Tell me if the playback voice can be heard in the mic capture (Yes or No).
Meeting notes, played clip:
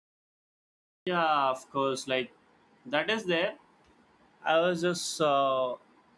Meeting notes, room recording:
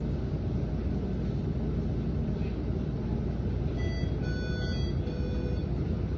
No